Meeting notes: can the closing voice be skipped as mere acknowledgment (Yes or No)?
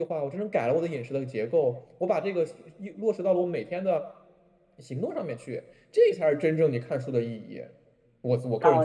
No